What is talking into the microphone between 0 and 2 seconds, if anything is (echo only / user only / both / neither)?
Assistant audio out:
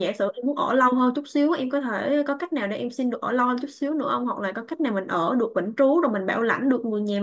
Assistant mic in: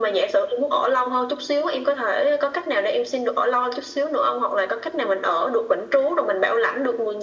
echo only